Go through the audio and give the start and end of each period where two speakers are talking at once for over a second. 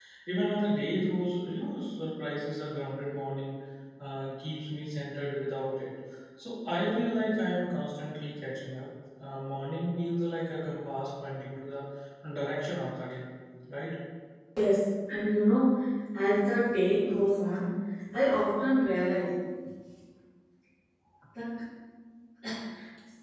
none

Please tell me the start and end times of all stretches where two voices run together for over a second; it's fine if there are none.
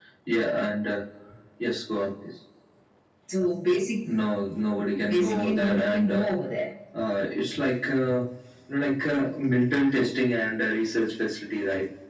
5.1-6.3

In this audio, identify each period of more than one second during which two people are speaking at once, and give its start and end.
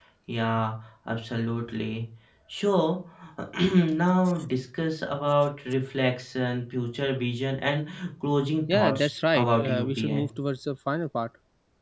8.7-10.3

